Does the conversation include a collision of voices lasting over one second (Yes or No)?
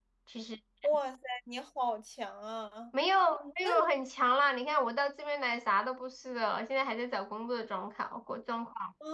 No